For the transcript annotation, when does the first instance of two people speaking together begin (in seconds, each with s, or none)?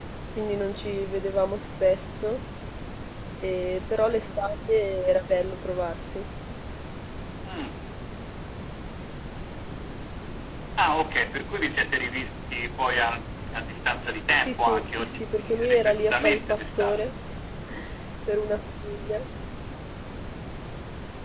14.4 s